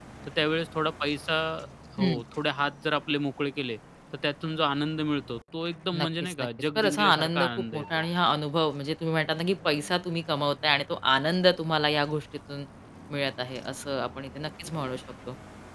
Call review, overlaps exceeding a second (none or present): present